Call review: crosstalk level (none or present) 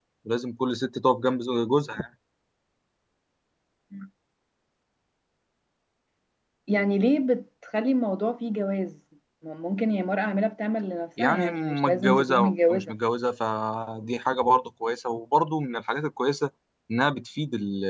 present